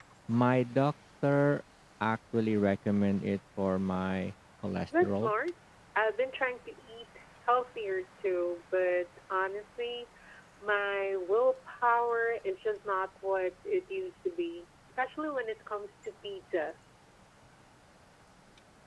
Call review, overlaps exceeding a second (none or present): none